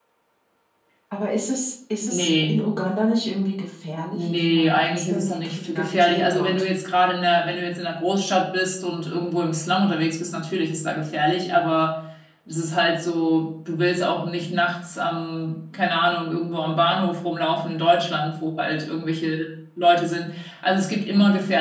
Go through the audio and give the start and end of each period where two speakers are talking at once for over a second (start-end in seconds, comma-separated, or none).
4.1-6.5